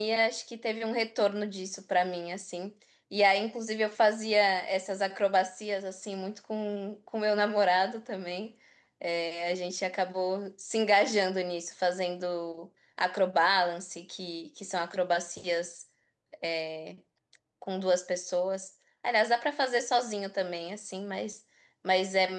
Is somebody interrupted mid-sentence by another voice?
No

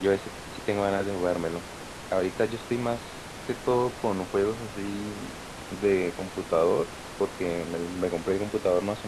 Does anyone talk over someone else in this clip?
No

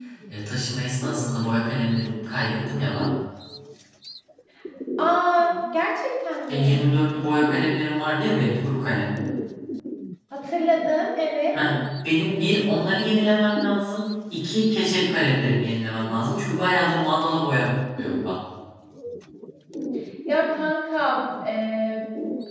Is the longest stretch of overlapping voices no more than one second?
Yes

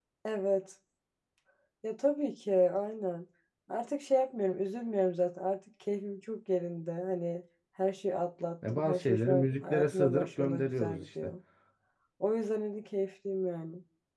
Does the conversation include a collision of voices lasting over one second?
Yes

